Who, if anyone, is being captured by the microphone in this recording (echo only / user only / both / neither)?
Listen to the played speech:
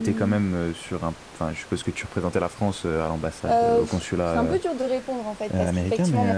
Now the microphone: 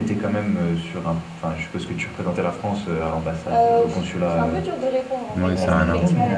both